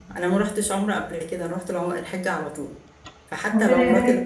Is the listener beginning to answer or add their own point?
Yes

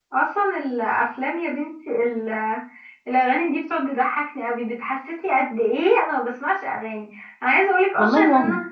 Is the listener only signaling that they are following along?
Yes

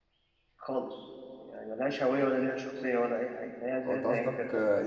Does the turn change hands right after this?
Yes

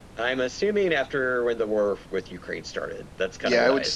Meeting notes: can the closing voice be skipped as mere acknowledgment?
No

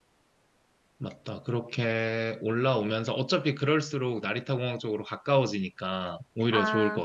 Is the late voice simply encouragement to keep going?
No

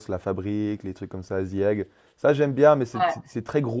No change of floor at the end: Yes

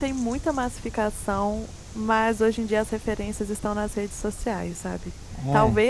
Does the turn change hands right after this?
No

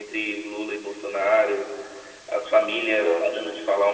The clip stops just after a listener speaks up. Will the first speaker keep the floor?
Yes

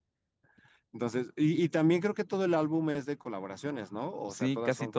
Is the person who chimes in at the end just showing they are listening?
No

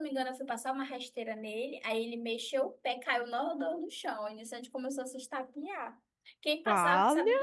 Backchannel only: Yes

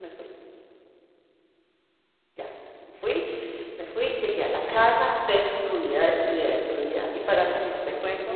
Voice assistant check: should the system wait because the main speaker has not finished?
Yes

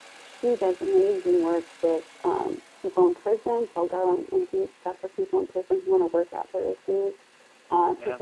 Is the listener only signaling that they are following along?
Yes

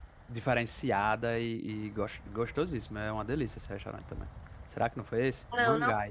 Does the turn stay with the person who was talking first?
No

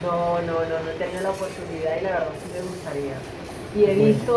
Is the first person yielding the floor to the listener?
No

